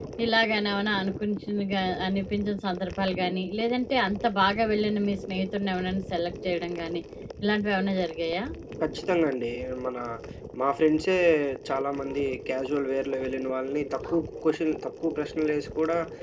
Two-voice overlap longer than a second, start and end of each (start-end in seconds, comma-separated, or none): none